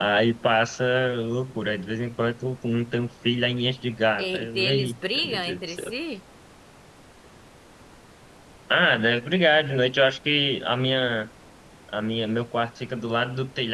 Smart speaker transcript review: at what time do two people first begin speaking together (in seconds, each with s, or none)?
4.2 s